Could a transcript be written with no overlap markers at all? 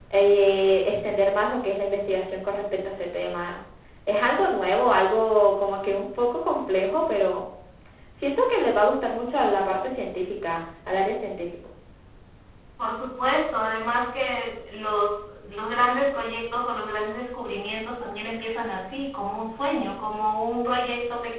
Yes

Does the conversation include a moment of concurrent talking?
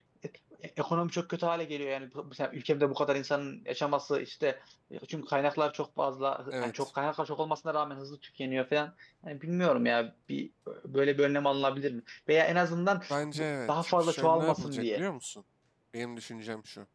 Yes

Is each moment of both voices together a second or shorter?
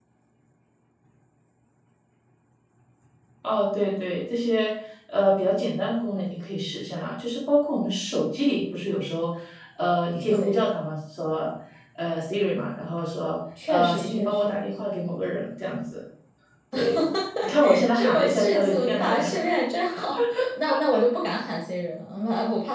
No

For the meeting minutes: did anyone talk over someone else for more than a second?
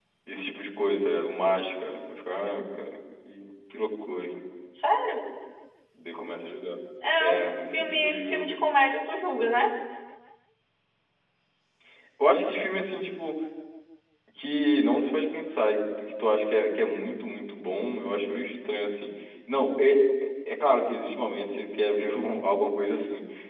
Yes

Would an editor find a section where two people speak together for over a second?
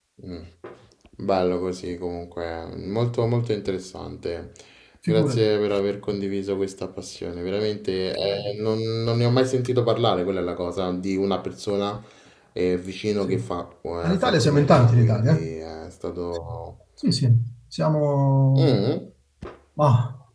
Yes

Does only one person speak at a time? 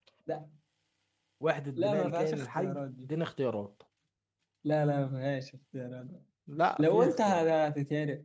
No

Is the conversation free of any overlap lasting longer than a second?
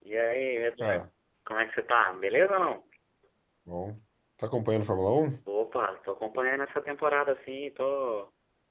Yes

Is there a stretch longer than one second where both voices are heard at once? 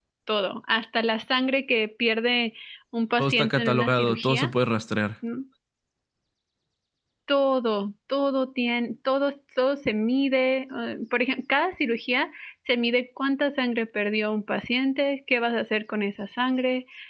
Yes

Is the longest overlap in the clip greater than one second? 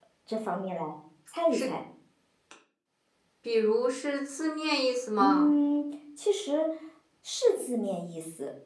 No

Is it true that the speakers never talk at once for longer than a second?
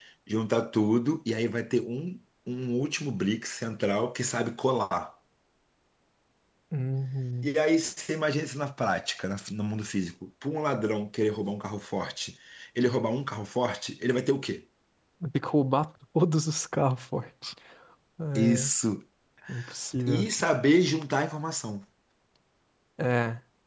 Yes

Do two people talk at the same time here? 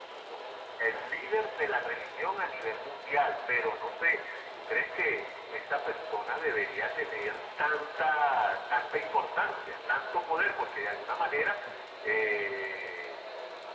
No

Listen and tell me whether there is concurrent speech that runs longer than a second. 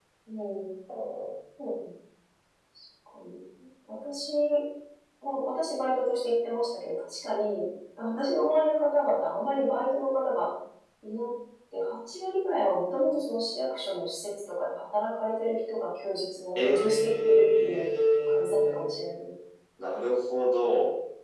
Yes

